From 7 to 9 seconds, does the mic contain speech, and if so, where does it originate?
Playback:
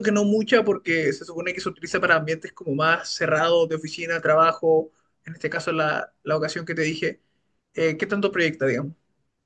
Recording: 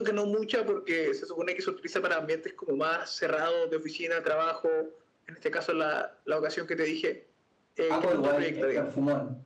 both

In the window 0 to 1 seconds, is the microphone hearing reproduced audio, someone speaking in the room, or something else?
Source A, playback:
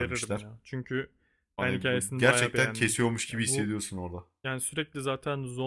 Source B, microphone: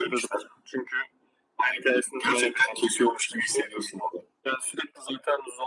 echo only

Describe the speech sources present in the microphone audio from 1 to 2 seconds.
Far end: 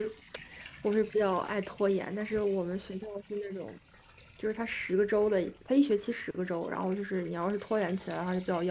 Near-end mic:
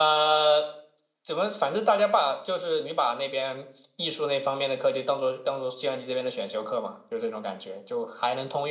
user only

